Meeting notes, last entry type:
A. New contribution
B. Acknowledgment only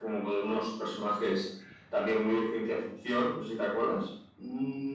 A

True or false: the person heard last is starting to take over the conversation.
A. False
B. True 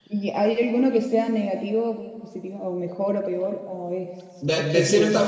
B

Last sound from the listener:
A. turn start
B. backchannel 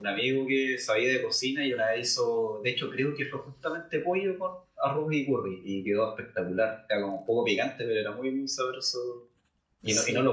B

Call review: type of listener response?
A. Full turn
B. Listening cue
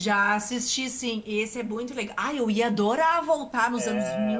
A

